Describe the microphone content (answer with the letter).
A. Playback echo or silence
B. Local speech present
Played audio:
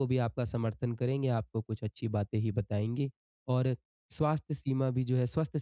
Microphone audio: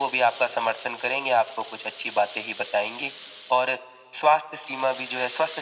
A